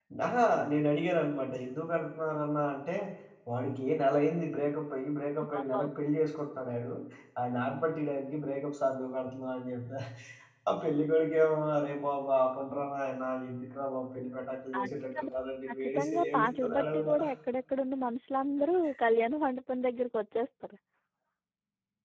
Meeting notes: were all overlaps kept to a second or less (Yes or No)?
No